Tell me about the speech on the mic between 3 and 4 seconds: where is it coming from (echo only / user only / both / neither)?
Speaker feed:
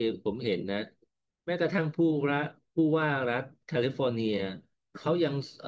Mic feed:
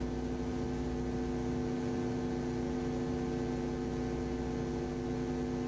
neither